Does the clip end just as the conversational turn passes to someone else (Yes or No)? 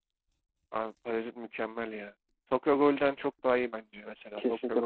Yes